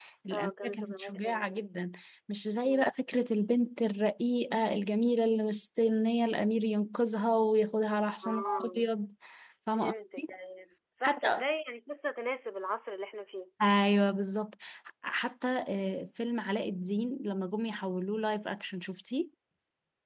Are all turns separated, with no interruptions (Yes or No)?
No